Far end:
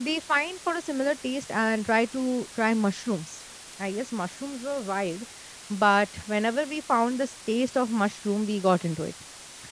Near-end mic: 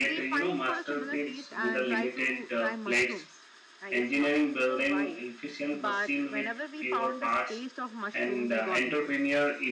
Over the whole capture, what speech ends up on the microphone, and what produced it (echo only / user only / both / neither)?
both